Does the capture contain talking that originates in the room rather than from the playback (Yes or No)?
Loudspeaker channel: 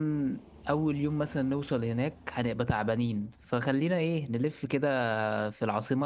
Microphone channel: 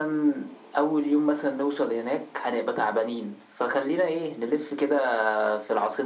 No